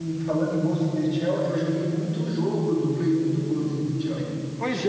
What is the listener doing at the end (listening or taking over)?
taking over